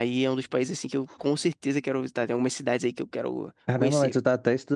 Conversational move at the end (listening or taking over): taking over